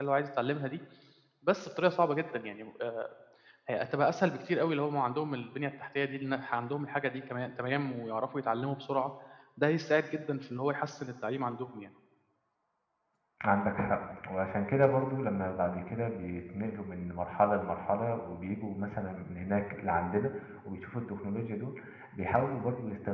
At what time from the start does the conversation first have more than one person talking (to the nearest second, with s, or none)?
none